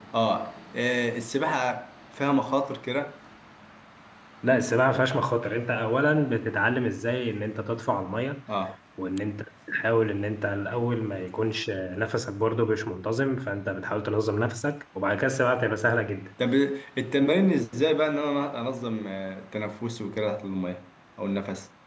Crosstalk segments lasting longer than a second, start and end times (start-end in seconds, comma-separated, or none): none